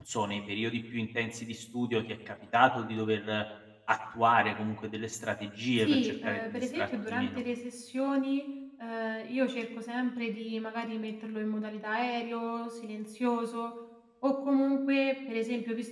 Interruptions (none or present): present